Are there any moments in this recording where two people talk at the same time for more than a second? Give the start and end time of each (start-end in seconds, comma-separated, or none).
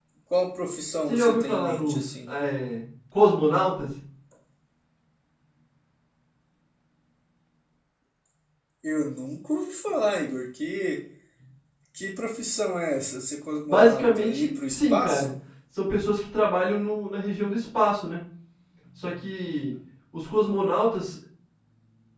1.1-2.3, 13.7-15.3